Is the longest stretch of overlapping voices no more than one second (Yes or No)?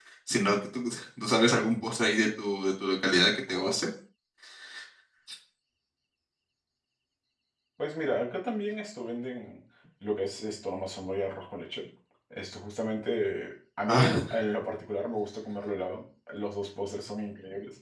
Yes